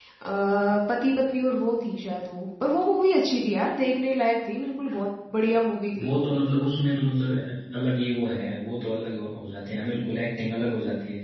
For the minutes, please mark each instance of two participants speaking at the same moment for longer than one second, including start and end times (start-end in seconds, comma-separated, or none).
none